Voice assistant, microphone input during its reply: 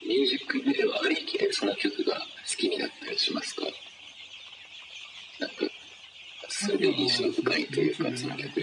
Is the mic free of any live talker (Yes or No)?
No